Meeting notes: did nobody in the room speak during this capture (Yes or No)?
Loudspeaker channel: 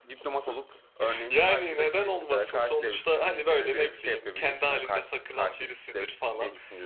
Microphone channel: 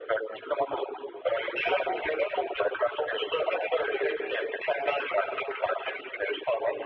Yes